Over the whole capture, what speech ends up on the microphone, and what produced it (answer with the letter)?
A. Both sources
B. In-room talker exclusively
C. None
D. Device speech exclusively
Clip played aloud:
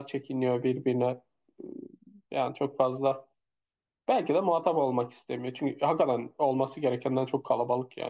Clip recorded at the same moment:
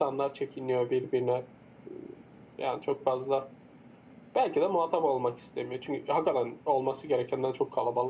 D